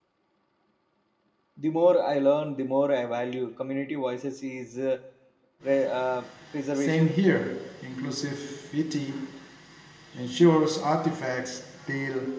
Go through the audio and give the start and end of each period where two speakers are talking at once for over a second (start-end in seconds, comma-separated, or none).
none